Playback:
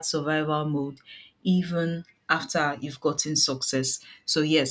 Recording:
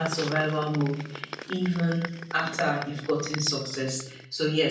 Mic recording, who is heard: echo only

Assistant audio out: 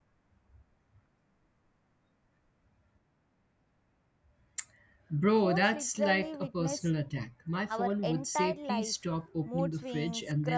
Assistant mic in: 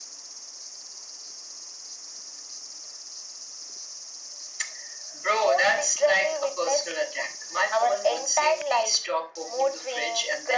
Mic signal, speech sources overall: echo only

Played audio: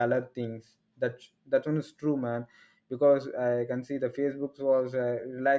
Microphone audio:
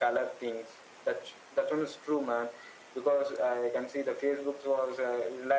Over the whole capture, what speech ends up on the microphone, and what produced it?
echo only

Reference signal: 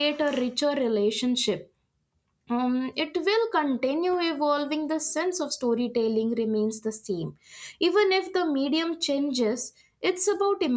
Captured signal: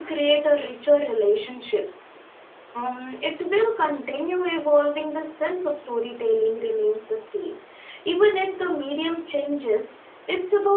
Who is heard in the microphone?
echo only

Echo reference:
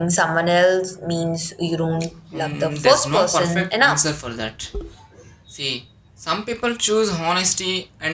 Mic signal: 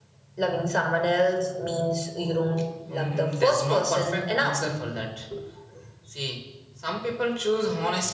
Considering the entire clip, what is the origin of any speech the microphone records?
echo only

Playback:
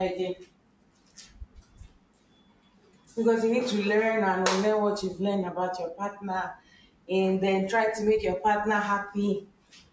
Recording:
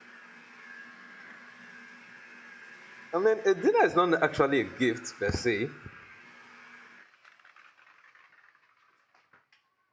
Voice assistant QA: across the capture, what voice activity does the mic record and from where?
user only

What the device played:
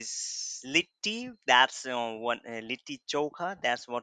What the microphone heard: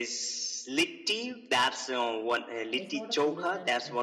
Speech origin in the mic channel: both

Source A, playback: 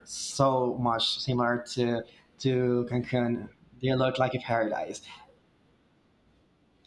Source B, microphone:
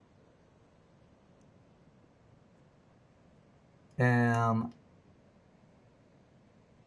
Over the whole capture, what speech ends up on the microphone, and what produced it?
user only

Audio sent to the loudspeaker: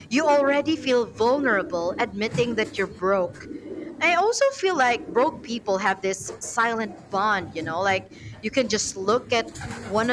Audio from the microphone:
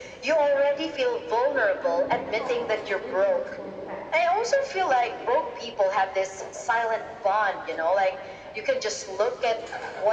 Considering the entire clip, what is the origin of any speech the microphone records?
both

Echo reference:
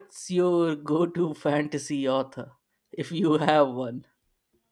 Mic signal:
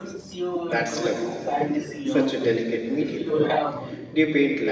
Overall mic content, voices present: both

